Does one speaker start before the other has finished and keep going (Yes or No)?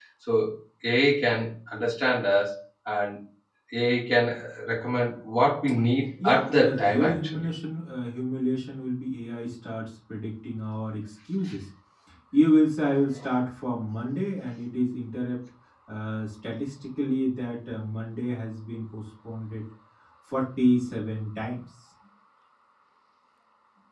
Yes